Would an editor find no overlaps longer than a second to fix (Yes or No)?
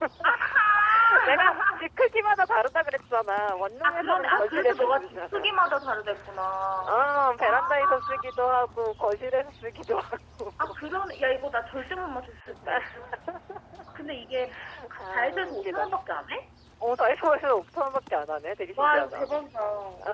No